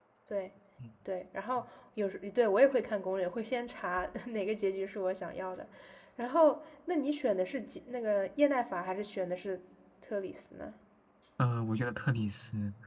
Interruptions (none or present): none